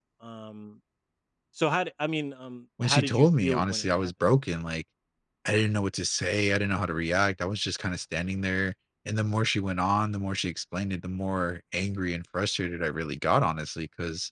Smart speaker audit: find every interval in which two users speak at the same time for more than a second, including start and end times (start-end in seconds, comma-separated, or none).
2.8-4.1